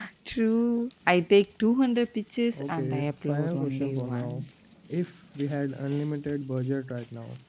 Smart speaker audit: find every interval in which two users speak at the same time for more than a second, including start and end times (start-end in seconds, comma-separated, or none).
2.6-4.5